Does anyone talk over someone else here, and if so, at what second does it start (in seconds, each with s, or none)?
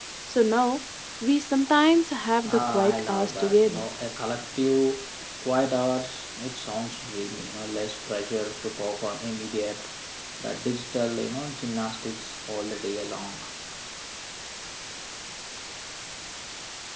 2.5 s